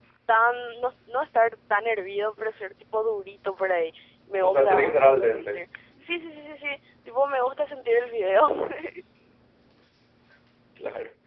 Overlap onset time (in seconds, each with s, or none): 4.4 s